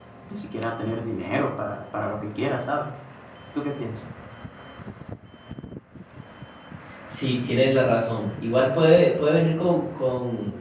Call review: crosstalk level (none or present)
none